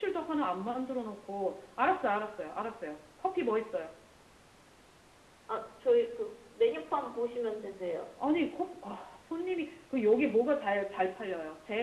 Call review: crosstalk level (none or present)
none